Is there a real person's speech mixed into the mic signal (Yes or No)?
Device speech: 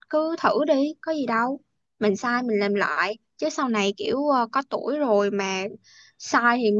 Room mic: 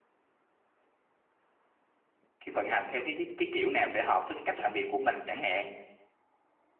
Yes